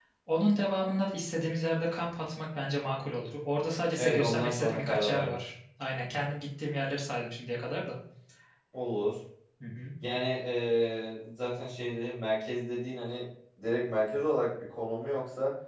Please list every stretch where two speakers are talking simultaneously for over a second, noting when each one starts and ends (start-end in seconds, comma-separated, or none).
3.9-5.4